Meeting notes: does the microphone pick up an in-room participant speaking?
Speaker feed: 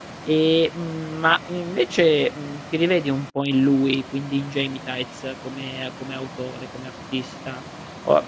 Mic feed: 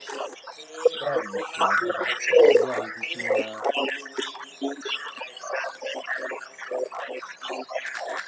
Yes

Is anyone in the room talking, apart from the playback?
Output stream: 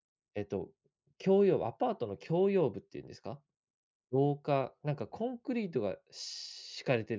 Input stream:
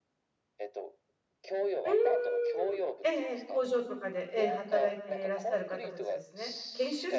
Yes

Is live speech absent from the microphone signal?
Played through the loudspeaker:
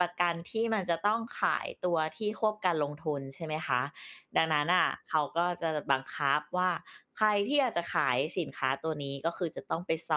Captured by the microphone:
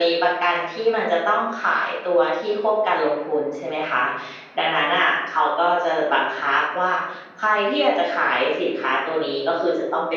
Yes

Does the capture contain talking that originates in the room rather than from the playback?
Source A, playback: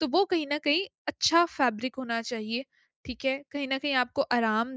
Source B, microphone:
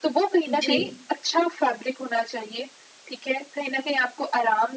Yes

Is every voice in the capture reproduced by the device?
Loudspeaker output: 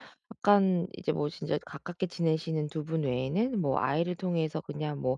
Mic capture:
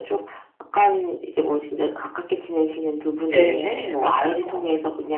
No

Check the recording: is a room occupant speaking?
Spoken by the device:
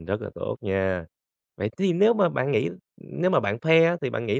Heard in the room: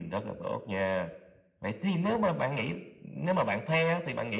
No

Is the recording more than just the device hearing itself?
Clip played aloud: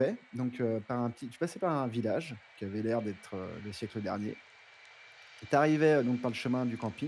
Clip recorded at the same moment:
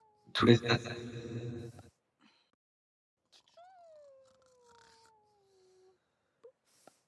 Yes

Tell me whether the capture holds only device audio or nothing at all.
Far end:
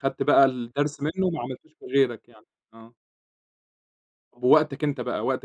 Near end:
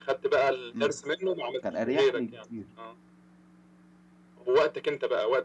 No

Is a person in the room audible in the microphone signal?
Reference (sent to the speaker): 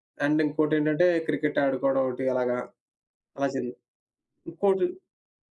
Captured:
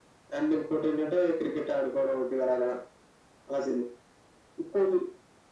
No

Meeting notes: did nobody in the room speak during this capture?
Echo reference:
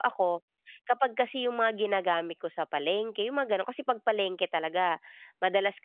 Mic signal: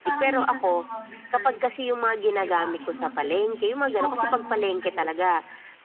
No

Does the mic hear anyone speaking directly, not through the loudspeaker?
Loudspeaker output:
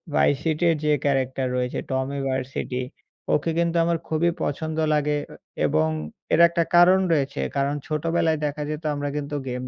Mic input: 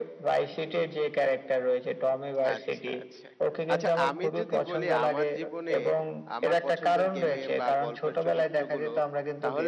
Yes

